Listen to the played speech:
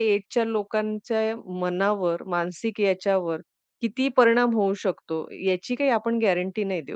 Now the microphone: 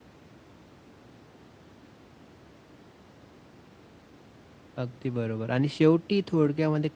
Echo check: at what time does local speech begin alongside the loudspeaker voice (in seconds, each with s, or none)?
4.8 s